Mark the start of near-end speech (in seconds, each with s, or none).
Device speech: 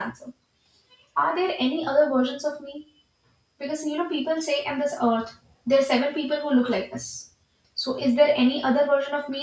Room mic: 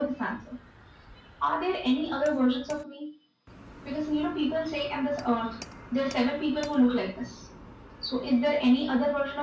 none